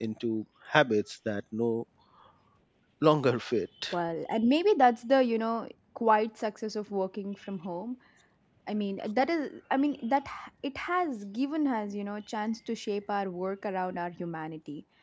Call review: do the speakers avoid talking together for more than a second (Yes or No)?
Yes